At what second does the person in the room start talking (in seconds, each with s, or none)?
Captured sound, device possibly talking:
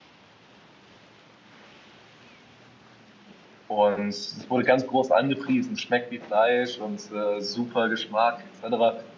3.7 s